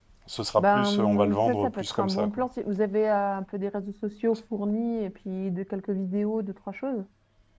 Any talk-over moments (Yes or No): Yes